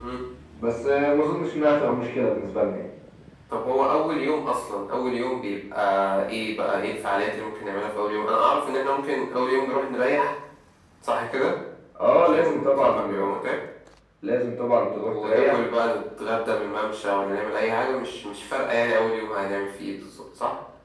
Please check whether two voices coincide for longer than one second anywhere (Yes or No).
Yes